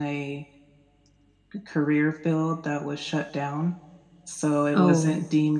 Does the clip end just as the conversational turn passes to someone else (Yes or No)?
No